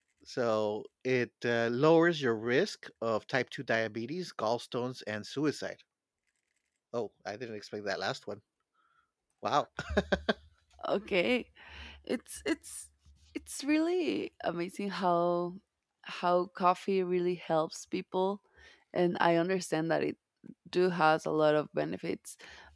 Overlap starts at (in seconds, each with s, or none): none